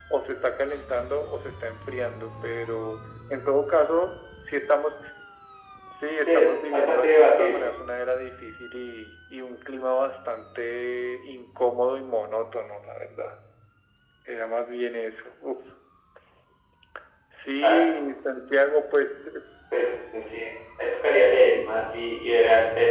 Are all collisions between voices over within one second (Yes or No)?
No